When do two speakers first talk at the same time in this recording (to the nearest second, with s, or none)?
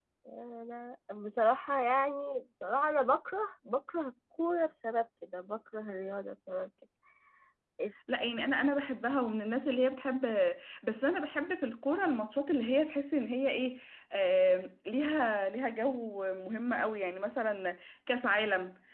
none